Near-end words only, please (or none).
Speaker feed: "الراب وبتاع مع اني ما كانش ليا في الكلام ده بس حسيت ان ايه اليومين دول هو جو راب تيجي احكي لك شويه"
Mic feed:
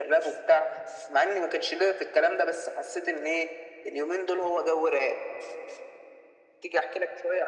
none